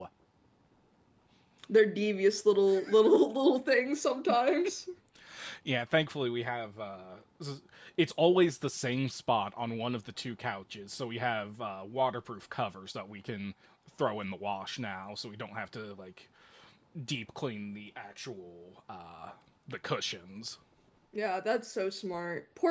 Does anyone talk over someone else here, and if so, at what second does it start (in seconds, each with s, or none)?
none